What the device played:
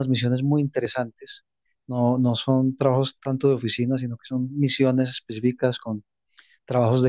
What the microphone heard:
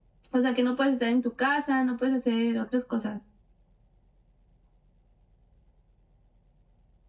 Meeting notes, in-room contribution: present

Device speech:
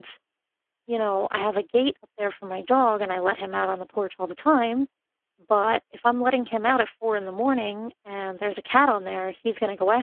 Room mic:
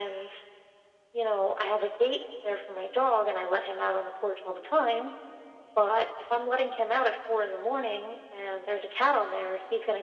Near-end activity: none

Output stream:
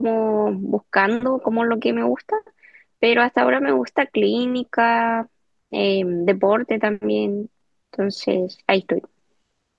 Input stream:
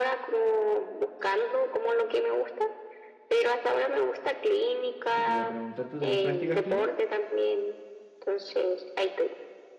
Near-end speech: present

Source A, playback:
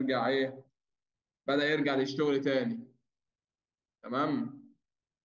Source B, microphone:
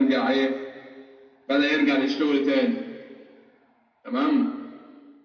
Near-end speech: none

